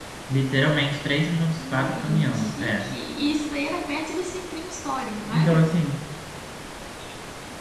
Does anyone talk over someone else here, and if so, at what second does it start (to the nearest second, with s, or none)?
2 s